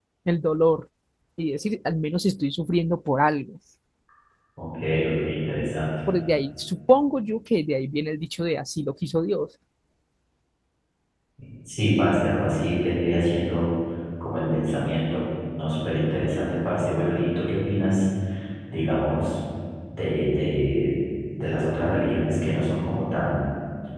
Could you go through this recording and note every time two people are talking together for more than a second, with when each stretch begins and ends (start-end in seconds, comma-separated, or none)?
none